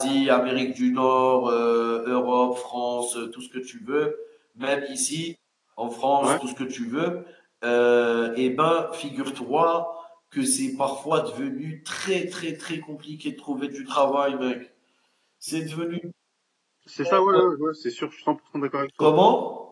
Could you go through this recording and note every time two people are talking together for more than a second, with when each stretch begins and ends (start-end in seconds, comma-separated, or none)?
none